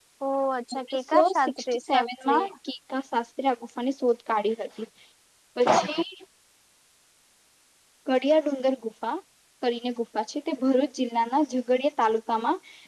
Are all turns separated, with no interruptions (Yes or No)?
No